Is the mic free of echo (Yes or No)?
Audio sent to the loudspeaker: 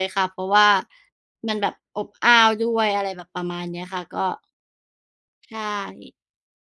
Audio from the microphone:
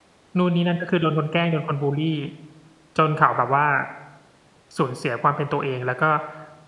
Yes